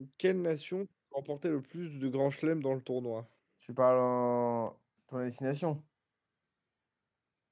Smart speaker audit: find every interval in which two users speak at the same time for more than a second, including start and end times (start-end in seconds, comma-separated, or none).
none